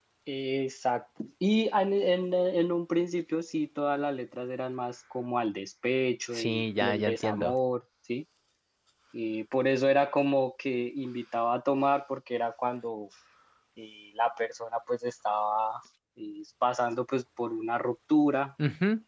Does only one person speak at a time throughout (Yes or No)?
No